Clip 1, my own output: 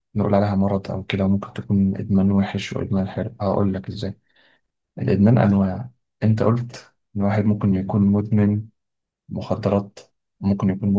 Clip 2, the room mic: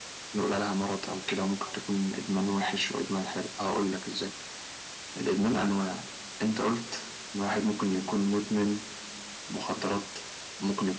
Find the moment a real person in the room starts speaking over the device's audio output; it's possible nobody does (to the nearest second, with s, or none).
none